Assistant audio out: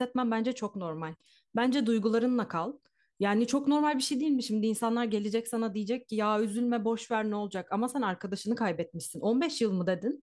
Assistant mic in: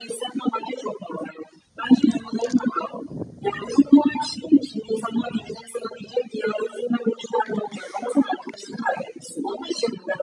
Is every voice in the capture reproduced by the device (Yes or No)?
Yes